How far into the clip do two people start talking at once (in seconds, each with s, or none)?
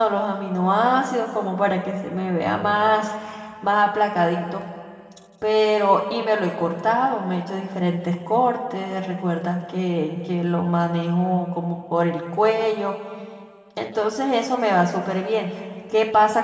none